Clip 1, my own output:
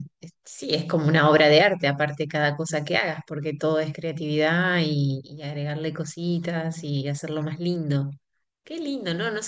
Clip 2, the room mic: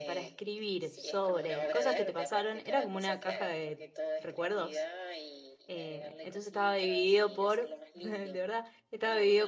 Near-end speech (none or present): present